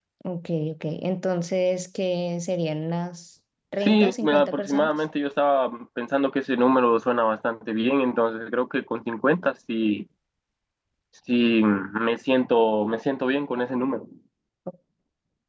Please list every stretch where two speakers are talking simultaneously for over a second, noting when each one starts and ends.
3.8-5.0

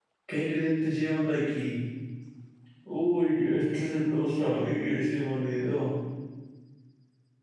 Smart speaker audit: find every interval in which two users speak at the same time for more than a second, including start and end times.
none

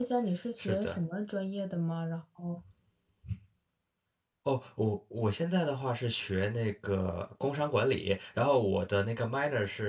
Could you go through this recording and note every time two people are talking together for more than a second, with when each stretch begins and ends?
none

